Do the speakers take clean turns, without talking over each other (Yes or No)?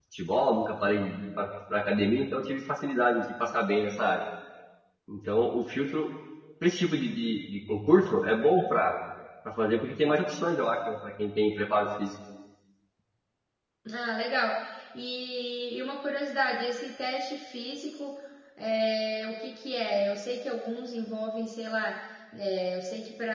Yes